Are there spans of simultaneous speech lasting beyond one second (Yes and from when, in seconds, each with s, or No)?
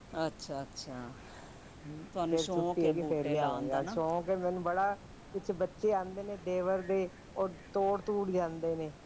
Yes, from 2.3 s